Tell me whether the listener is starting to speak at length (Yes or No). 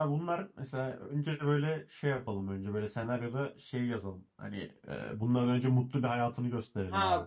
Yes